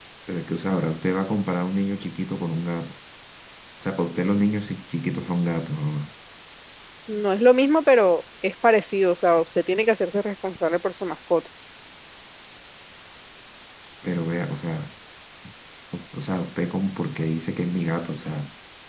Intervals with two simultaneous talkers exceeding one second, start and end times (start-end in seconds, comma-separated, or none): none